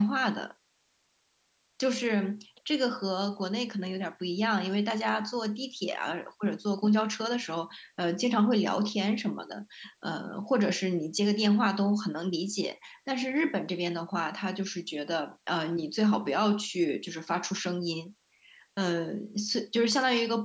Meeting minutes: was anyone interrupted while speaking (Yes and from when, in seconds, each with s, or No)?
No